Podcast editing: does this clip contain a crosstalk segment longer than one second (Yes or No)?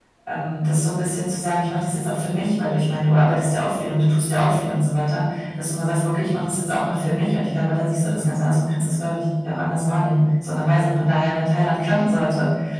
No